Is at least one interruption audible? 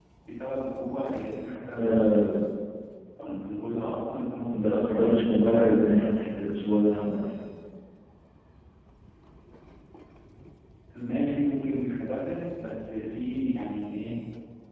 Yes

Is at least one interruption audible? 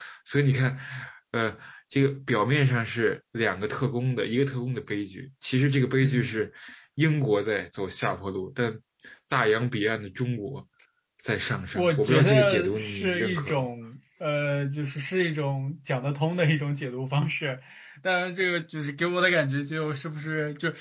Yes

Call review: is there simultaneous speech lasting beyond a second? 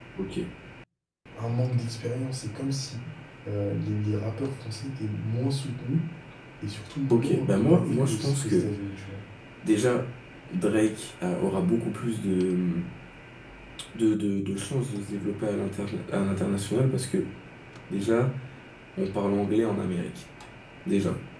Yes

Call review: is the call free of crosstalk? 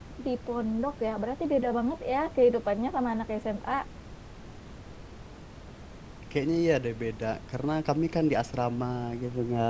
Yes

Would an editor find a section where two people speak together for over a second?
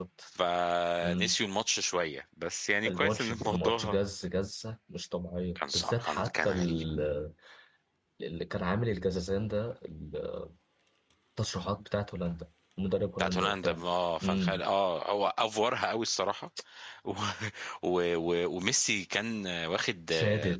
Yes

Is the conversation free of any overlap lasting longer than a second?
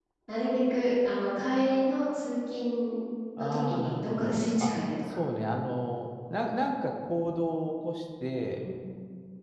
No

